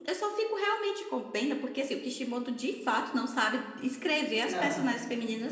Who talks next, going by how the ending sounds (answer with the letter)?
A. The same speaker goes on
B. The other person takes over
A